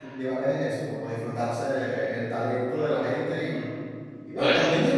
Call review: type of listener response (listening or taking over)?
listening